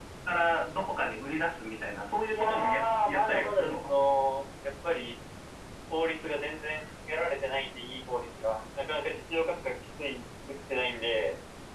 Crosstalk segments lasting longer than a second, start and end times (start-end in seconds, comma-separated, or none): 2.3-3.9